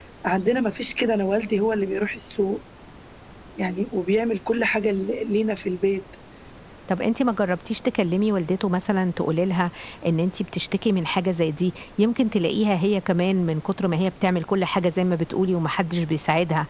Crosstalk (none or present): none